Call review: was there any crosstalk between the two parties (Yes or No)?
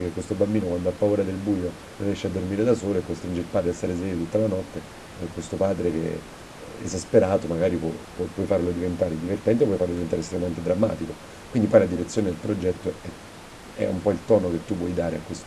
No